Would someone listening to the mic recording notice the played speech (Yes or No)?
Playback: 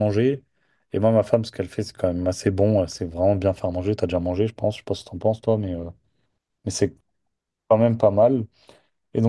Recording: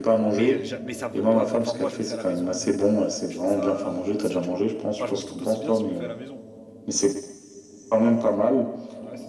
Yes